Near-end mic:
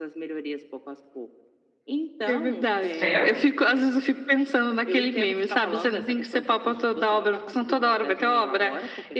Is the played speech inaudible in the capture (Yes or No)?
No